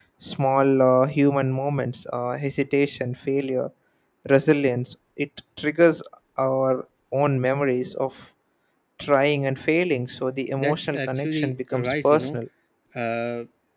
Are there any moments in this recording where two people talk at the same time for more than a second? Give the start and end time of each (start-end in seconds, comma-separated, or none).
10.6-12.4